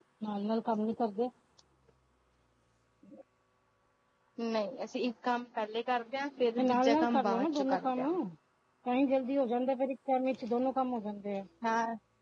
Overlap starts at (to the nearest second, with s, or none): 7 s